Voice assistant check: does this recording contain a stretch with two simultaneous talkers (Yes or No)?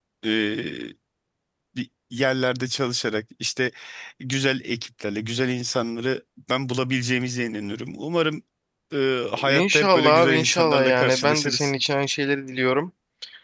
Yes